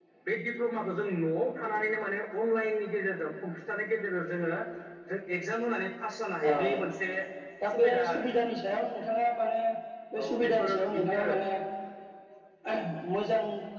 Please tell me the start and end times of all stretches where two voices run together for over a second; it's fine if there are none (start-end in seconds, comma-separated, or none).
10.2-11.4